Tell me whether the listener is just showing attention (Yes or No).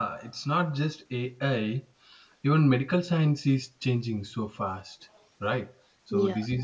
Yes